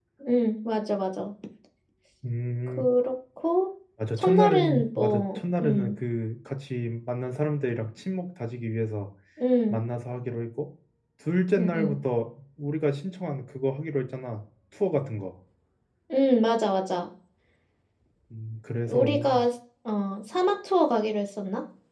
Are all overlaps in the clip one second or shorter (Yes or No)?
No